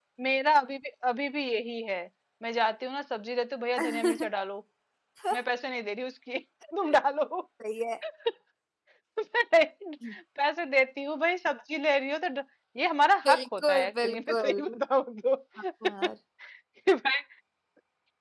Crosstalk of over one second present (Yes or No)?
Yes